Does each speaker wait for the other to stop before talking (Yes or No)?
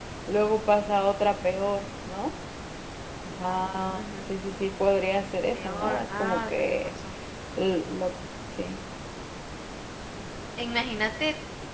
No